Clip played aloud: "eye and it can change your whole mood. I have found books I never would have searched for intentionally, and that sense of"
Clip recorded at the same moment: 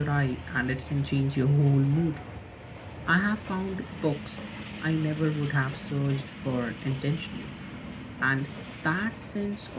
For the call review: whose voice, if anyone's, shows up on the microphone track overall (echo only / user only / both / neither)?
echo only